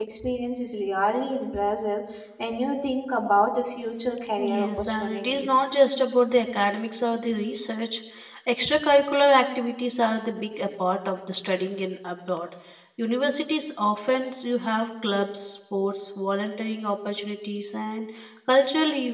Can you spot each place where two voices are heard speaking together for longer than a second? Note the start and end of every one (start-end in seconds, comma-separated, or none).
4.4-5.6